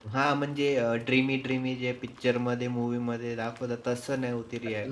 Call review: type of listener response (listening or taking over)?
taking over